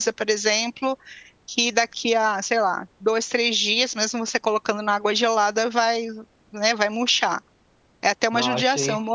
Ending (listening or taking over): listening